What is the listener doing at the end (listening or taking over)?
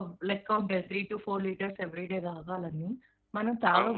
taking over